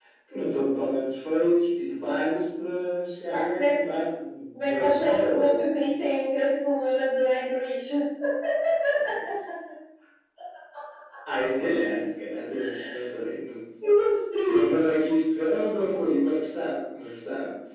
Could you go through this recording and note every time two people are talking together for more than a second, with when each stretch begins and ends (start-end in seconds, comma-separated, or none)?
4.5-5.8